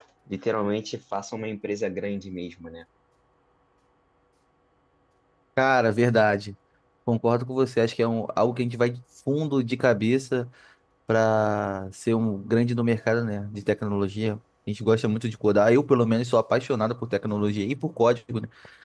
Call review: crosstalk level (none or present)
none